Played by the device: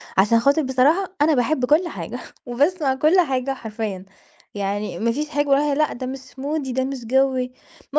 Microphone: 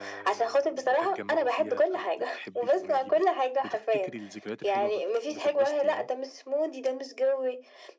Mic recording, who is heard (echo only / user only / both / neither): both